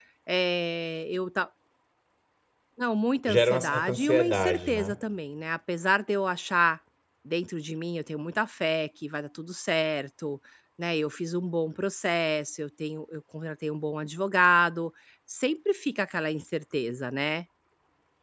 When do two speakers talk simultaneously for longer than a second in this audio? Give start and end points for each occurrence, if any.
3.2-5.0

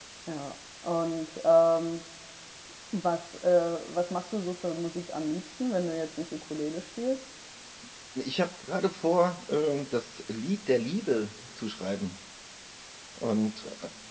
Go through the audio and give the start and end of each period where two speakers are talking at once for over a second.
none

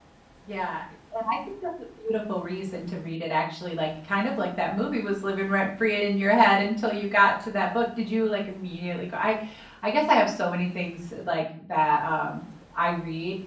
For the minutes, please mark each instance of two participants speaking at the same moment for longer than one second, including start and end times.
none

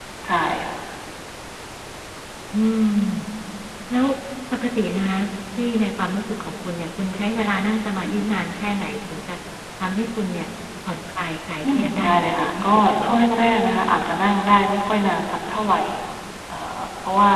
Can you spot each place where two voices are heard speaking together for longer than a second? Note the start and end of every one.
11.8-13.2

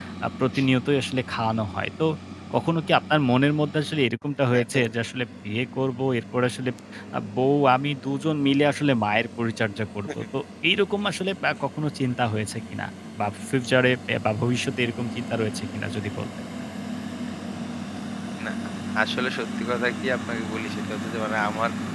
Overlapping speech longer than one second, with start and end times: none

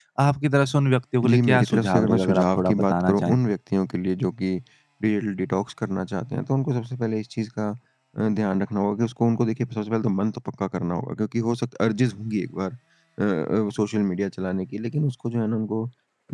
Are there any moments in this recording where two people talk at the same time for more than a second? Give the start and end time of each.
1.3-3.4

